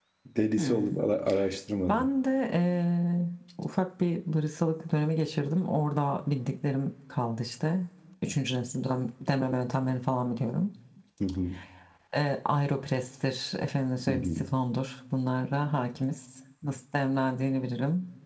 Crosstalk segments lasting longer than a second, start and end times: none

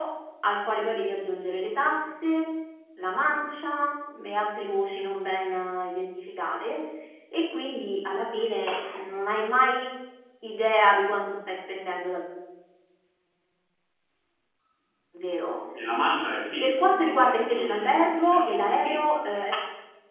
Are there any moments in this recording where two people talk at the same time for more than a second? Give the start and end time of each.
16.6-19.0

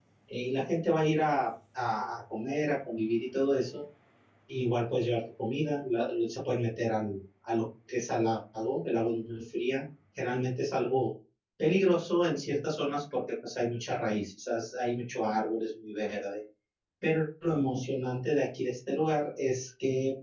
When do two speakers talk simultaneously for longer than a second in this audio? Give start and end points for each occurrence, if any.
none

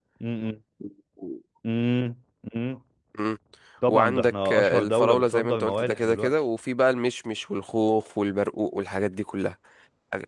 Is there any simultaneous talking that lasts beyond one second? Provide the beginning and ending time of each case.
3.9-6.3

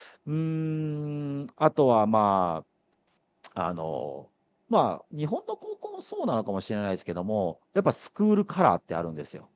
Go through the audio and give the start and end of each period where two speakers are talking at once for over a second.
none

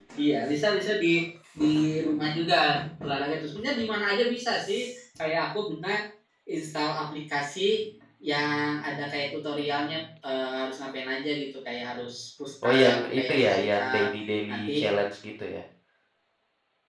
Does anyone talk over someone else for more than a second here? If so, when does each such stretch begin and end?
12.6-14.1

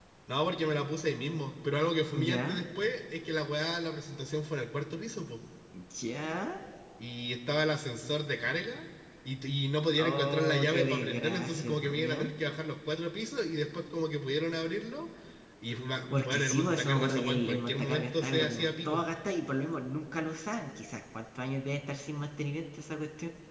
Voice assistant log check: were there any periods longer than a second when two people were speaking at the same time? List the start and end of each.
10.0-12.3, 16.1-19.1

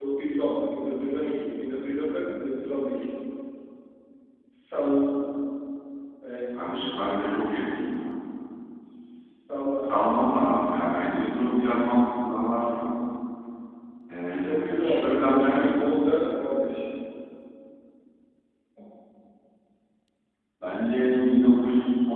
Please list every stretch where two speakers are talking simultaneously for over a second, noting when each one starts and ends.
14.3-15.9

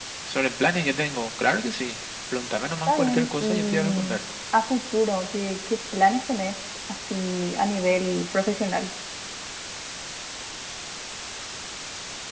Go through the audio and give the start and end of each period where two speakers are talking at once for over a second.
2.8-4.2

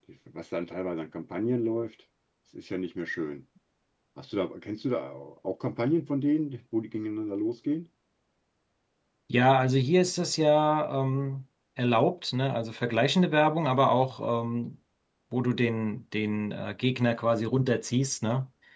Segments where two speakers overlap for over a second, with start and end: none

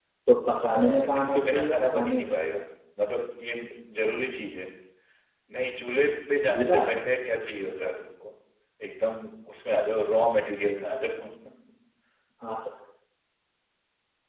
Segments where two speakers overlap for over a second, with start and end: 0.7-2.4

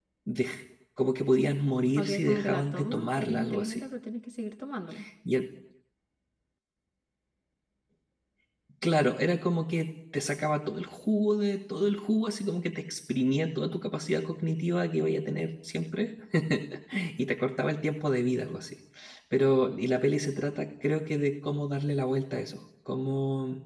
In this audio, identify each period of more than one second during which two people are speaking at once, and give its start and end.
1.9-3.8

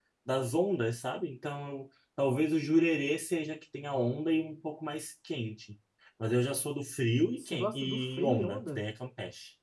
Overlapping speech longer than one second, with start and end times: 7.4-8.8

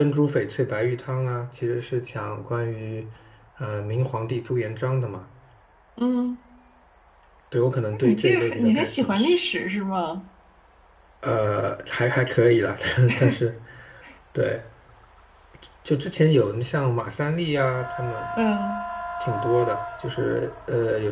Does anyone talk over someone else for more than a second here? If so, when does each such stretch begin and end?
8.0-9.4

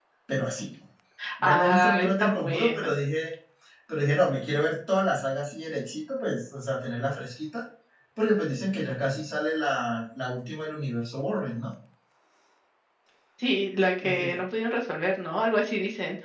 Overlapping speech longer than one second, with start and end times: 1.4-2.9

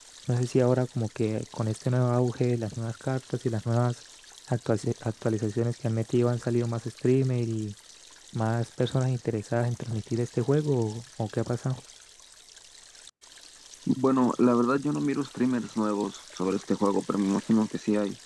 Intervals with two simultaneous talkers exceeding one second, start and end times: none

